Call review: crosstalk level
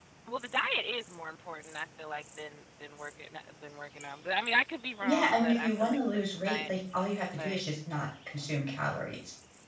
present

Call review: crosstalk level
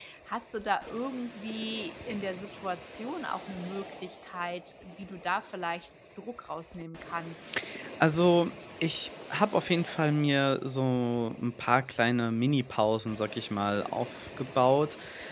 none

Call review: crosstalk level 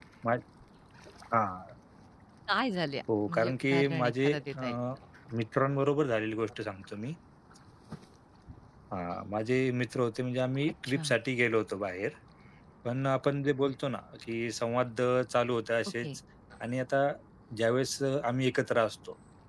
present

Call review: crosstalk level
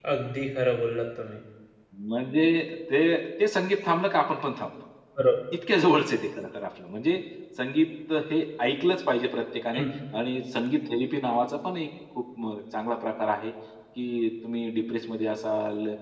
none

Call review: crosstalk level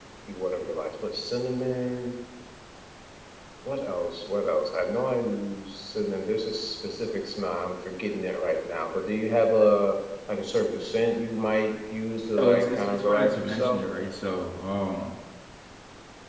present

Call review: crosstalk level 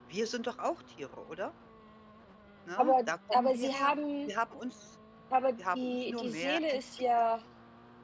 present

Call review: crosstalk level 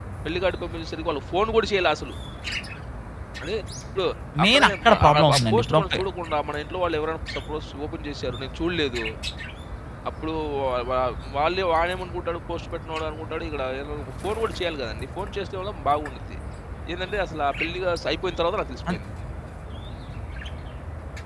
present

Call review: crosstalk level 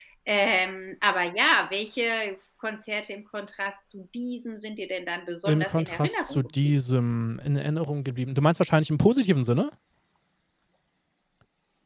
present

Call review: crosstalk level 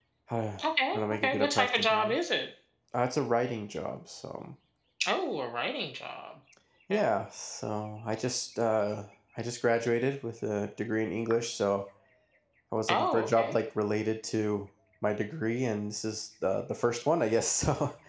present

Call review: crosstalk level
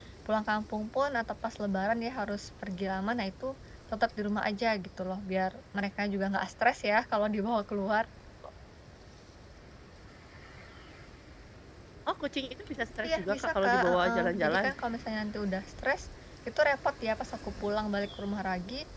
present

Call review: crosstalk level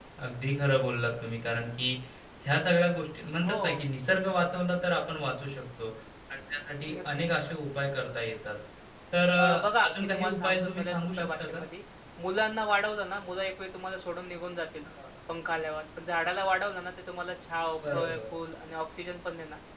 present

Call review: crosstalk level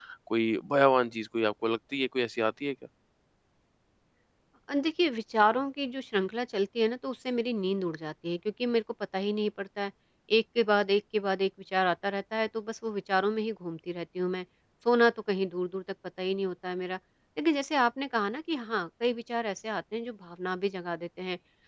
none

